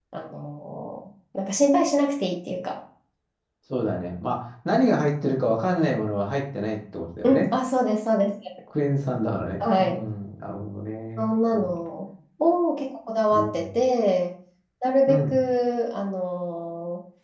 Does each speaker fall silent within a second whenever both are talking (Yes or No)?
Yes